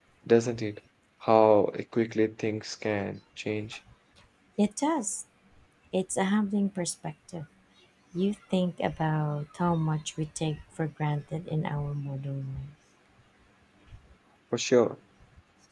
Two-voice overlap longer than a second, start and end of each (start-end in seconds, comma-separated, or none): none